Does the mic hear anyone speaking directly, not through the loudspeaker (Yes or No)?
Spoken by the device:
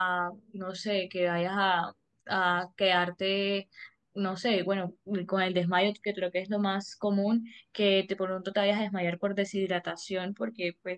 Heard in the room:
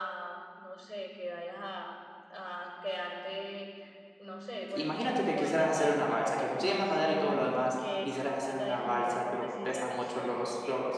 Yes